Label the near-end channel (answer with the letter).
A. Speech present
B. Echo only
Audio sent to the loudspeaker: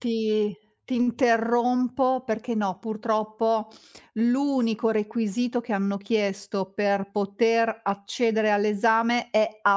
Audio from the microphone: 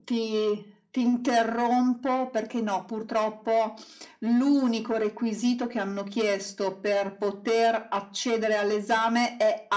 B